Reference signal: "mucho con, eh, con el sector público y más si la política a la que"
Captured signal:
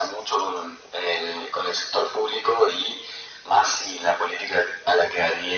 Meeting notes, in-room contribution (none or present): none